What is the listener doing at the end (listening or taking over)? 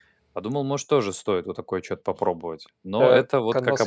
taking over